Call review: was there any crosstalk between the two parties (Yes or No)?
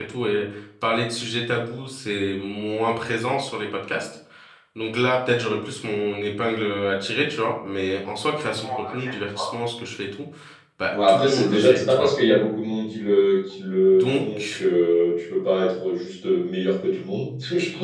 Yes